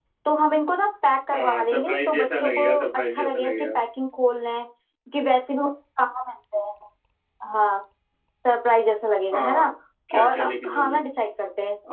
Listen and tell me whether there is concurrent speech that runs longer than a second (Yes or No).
Yes